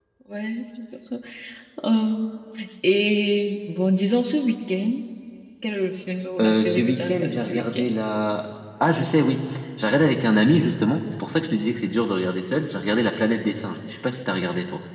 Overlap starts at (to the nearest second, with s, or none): 6 s